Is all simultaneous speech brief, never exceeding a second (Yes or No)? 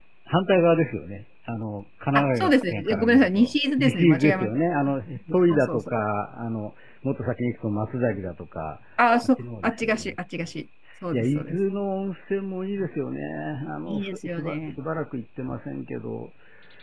No